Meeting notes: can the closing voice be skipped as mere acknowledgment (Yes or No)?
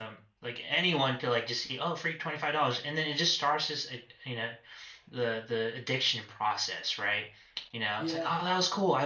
Yes